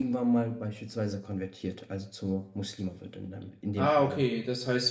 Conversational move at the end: taking over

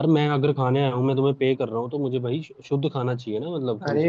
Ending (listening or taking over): taking over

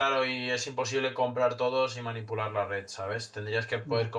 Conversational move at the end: listening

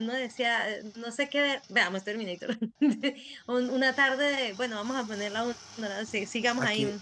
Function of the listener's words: taking over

